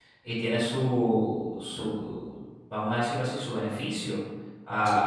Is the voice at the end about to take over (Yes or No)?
No